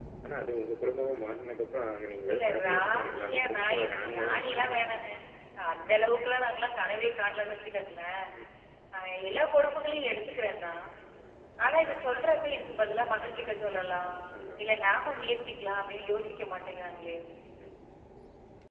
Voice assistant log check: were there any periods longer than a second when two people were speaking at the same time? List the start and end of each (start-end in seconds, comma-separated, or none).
2.3-5.0